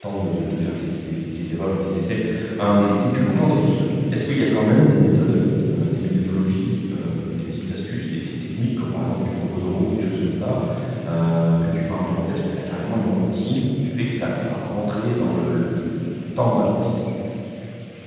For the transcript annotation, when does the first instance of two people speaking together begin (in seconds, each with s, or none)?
none